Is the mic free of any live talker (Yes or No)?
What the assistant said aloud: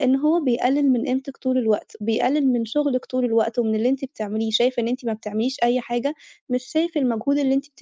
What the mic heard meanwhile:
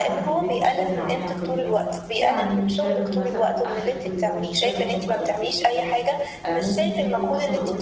No